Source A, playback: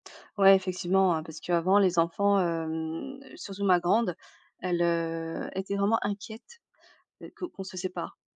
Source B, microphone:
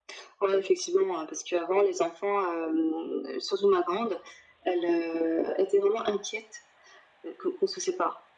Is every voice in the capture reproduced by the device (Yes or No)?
Yes